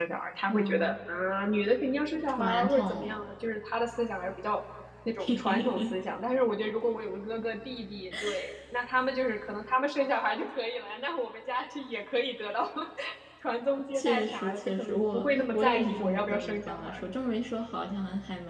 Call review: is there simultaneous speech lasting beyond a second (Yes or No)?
Yes